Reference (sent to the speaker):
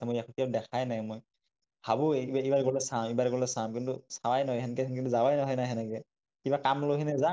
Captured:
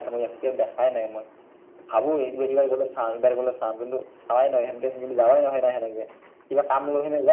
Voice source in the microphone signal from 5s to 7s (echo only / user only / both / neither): echo only